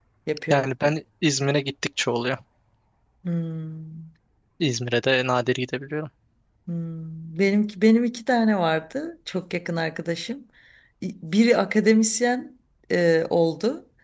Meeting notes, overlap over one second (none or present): none